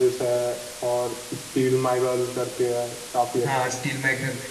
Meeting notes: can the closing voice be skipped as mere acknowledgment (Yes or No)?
No